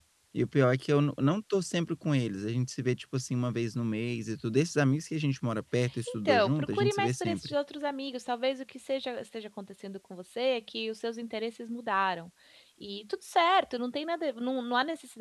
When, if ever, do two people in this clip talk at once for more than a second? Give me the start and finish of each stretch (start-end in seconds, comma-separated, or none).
6.1-7.5